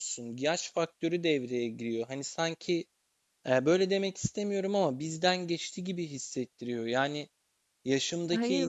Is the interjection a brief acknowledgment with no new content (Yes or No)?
Yes